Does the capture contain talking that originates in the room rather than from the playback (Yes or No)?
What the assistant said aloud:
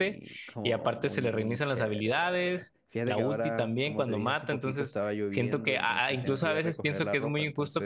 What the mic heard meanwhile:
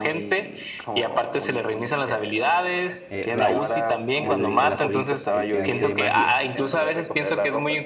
Yes